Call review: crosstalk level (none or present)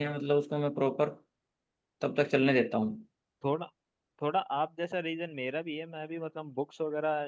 none